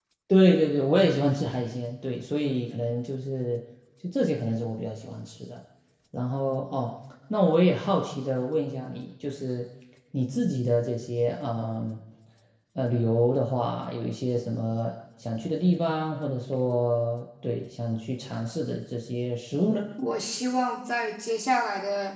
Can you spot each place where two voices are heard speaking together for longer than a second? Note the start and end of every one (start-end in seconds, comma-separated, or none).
none